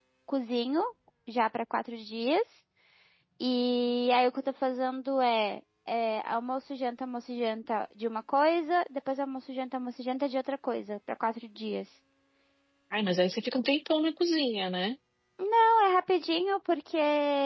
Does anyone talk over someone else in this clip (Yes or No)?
No